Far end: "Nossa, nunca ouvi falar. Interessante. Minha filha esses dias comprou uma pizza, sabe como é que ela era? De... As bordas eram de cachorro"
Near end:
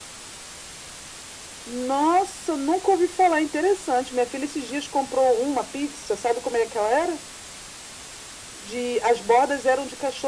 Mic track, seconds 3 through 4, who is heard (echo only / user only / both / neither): echo only